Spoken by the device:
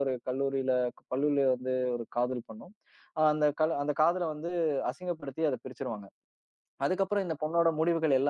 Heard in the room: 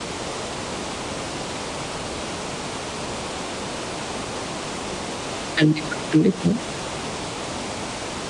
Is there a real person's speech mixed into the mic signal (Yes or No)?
Yes